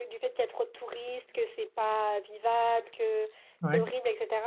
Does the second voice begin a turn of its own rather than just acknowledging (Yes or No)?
No